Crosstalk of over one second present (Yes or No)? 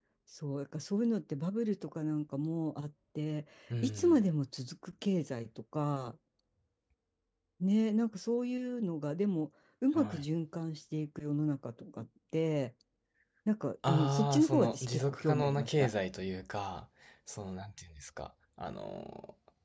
Yes